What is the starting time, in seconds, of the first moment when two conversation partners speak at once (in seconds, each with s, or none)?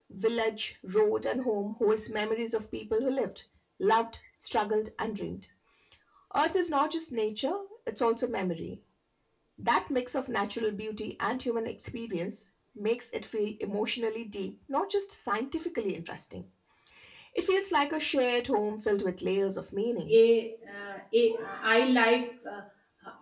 none